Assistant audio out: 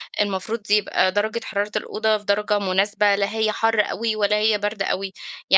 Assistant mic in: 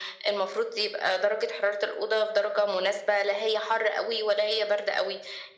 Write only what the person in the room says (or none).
none